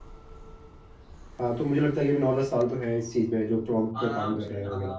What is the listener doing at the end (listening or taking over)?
taking over